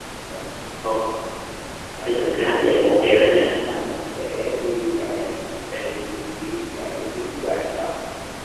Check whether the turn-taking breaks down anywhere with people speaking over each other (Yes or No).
Yes